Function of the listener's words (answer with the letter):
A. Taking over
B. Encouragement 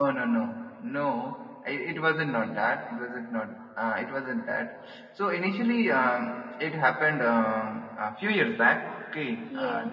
B